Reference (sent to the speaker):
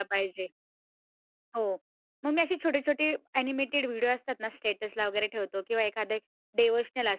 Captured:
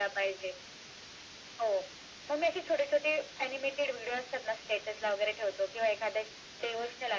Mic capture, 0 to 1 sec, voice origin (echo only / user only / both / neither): echo only